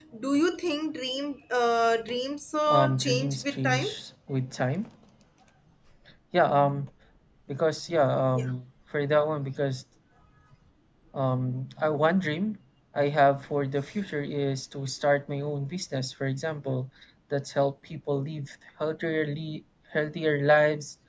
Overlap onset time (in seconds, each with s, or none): 2.7 s